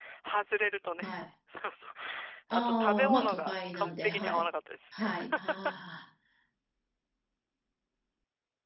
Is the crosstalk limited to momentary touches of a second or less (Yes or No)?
No